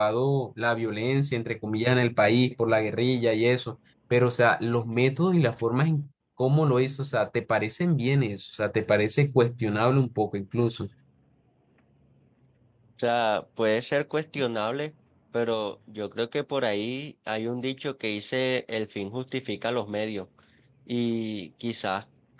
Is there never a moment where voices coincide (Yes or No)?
Yes